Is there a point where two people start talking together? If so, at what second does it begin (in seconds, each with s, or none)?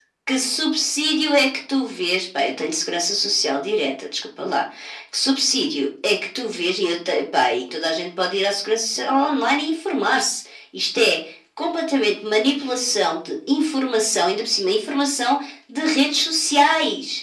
none